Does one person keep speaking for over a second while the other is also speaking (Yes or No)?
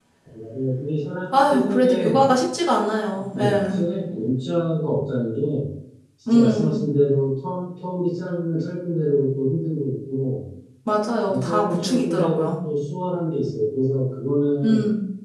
Yes